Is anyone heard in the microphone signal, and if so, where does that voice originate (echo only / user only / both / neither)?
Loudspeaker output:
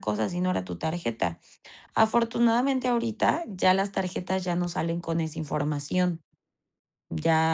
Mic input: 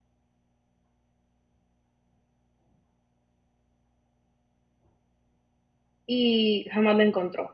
user only